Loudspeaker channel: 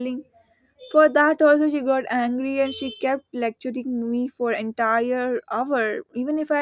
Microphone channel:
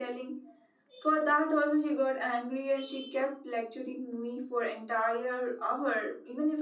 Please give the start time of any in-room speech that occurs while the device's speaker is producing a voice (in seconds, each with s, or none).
none